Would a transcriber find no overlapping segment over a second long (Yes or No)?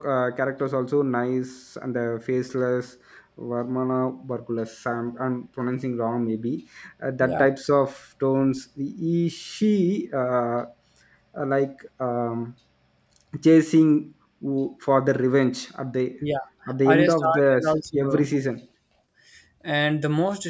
No